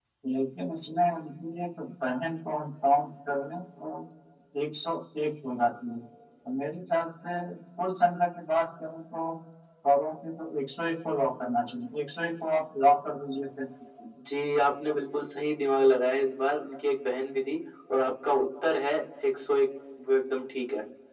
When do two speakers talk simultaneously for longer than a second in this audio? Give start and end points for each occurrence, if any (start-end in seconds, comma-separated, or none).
none